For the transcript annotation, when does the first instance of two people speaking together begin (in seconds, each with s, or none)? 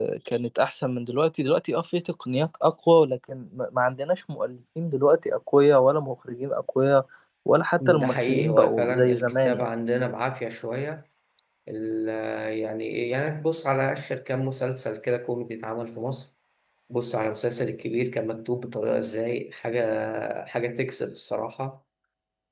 7.9 s